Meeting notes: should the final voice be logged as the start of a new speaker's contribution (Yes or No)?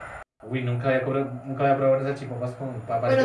Yes